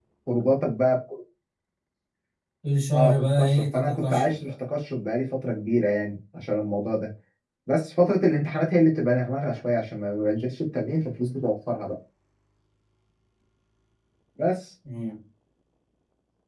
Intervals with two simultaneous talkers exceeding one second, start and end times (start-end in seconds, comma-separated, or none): 2.9-4.5